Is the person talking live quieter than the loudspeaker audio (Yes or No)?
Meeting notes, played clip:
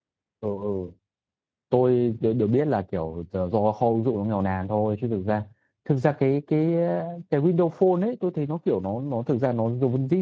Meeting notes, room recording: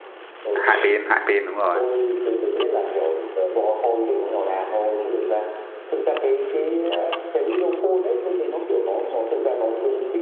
No